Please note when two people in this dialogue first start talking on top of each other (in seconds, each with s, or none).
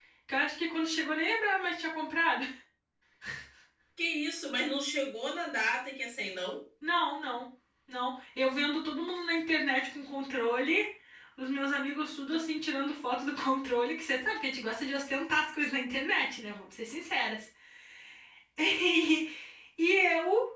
none